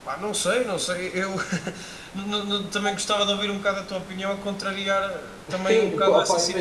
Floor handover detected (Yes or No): Yes